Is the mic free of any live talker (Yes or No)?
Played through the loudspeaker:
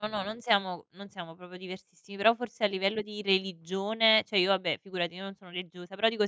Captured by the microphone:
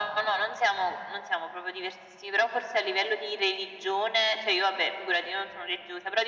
Yes